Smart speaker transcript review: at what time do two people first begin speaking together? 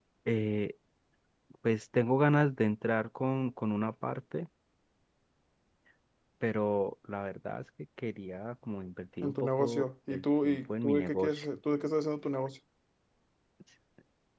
9.2 s

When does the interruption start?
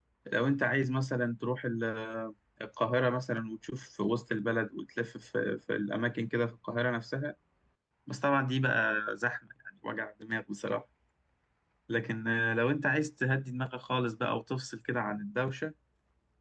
none

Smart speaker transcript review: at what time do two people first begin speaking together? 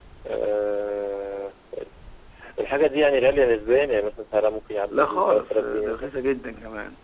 4.8 s

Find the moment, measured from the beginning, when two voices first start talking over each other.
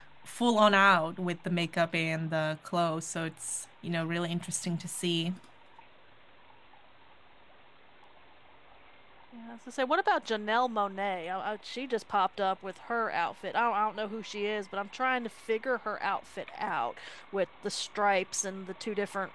none

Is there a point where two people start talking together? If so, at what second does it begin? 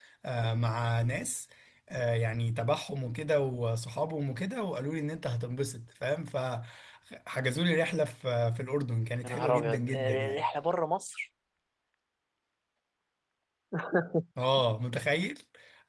9.2 s

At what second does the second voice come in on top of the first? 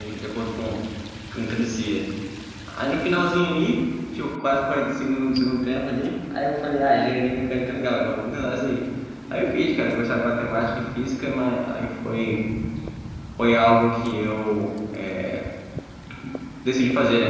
none

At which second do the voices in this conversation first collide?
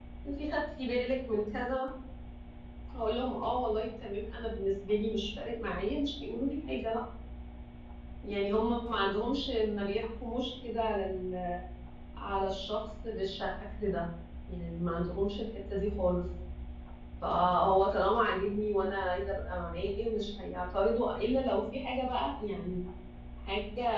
none

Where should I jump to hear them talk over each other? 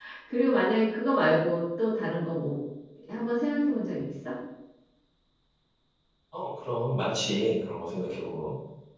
none

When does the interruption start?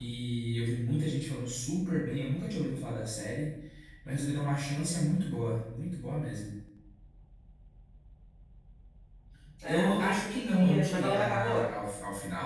9.8 s

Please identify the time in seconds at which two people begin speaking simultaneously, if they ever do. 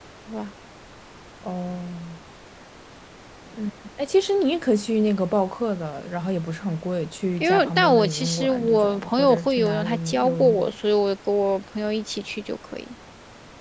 7.4 s

